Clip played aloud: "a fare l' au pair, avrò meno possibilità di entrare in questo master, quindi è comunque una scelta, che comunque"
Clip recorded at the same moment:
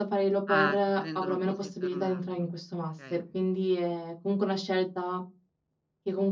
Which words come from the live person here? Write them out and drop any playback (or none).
Ah, ti prendono così, per 1 anno, okay.